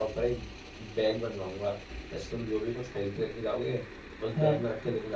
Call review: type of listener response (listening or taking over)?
listening